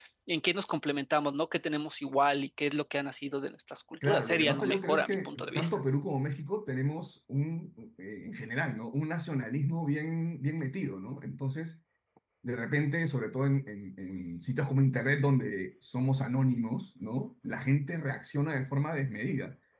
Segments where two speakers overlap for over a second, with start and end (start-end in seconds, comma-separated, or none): 4.0-5.8